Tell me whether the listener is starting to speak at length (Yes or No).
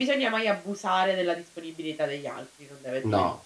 Yes